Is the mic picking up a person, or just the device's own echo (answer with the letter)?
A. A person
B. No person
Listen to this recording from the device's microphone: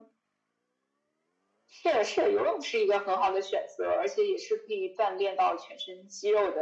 B